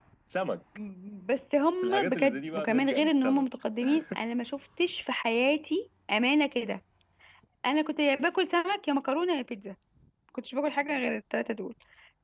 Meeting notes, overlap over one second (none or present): present